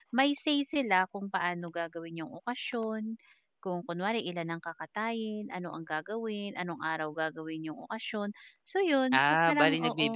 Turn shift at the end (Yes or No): Yes